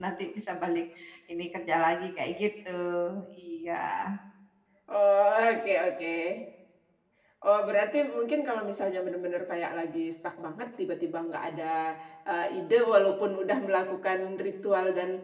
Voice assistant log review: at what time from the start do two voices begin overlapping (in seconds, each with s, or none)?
none